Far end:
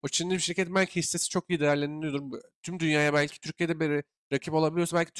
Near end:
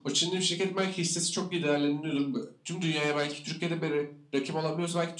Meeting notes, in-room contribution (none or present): none